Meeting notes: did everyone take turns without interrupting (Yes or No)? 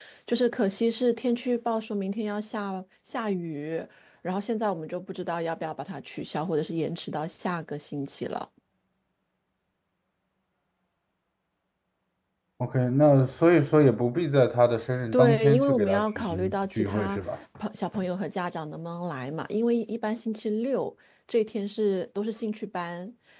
No